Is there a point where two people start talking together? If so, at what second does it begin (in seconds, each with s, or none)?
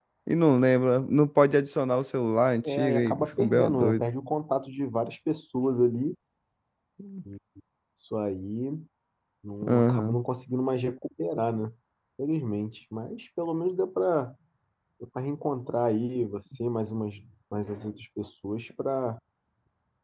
2.7 s